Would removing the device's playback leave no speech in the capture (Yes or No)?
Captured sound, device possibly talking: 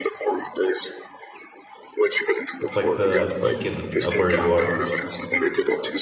No